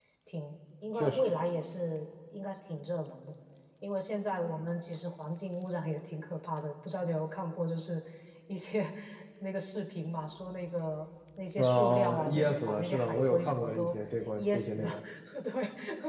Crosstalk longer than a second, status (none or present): present